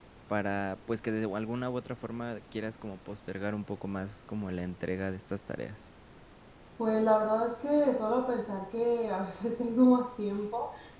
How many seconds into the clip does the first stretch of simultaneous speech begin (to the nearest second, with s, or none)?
none